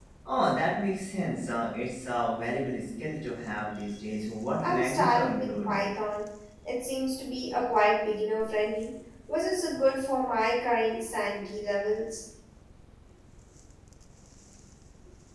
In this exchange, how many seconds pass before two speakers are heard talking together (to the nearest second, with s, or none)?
5 s